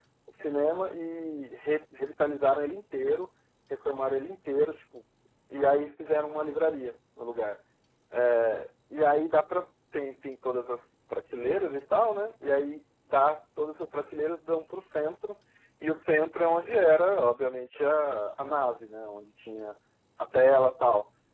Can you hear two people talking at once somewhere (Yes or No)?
No